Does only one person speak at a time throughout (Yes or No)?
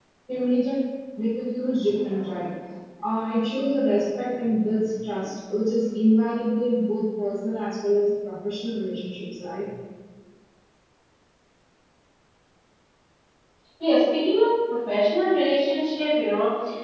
Yes